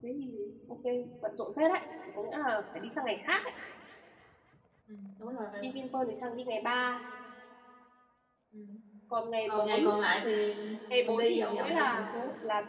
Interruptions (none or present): present